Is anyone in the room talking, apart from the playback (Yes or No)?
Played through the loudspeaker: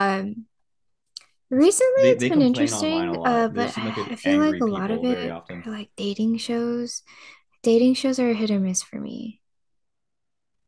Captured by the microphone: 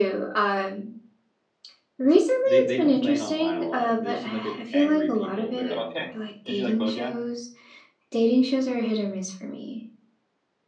Yes